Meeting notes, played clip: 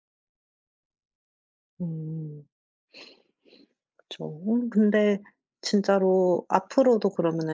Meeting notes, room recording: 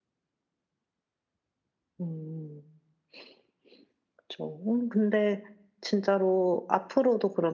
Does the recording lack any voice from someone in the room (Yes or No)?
Yes